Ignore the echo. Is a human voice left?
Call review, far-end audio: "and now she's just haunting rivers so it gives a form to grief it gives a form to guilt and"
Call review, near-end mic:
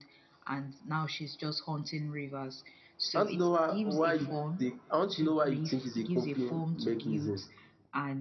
Yes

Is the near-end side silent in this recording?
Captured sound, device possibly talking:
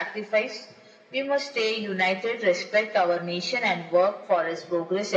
Yes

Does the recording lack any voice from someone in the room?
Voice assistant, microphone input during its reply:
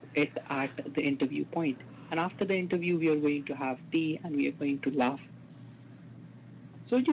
Yes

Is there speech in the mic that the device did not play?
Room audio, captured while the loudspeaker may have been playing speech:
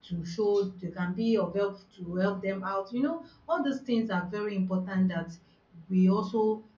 Yes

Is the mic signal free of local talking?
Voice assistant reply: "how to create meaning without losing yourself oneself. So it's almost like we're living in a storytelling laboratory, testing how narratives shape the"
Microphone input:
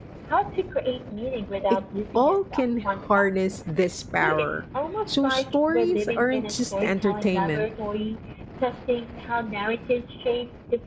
No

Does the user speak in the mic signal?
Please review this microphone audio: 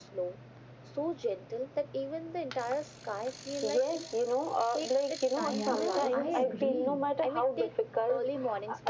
Yes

